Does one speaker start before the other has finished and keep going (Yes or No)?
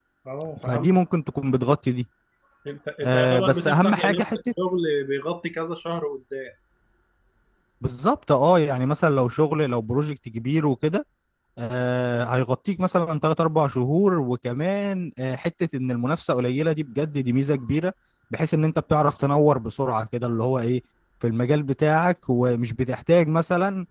Yes